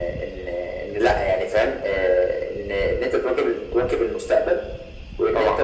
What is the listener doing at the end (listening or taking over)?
listening